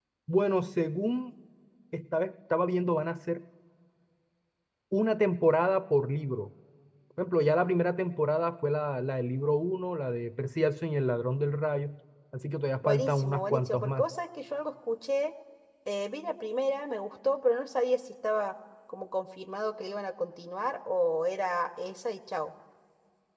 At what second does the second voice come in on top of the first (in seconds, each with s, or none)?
12.8 s